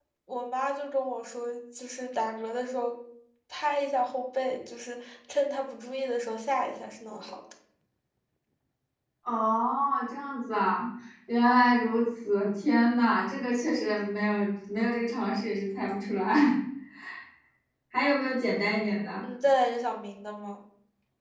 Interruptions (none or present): none